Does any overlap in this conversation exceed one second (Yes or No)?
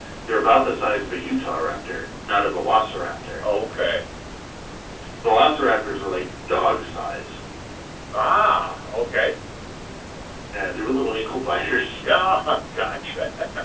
No